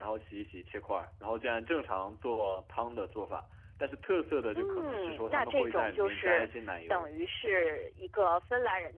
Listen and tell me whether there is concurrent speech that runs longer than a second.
Yes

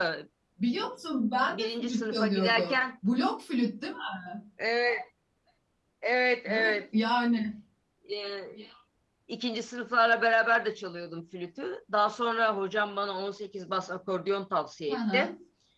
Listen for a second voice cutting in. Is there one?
Yes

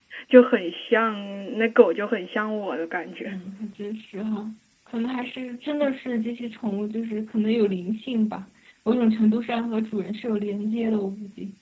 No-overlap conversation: Yes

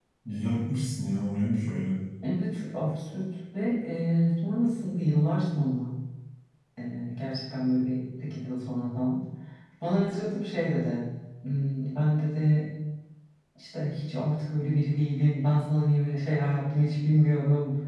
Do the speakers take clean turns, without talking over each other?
Yes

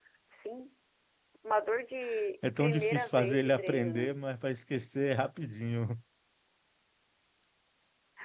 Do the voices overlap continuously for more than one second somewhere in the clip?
Yes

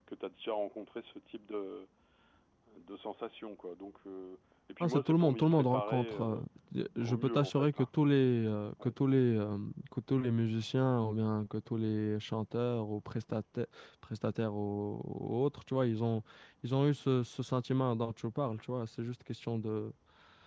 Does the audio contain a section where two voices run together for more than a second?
Yes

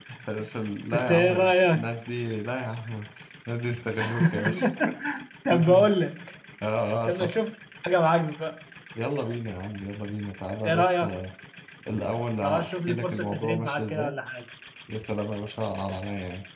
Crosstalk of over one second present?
Yes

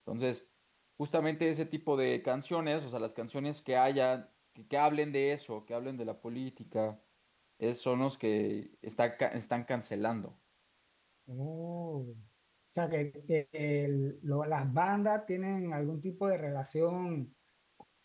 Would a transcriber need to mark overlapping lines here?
No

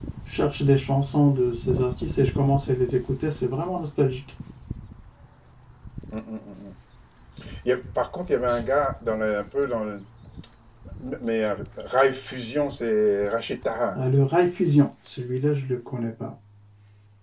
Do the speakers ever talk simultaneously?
No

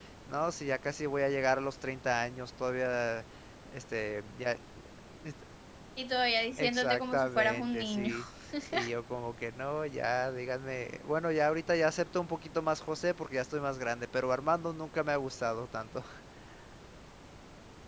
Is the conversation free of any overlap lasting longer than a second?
No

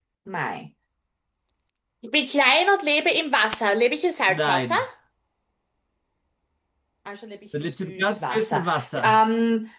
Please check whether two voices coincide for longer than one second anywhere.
Yes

